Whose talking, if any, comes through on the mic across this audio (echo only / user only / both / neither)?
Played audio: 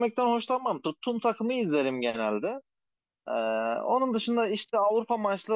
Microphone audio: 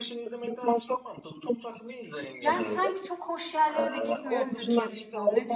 both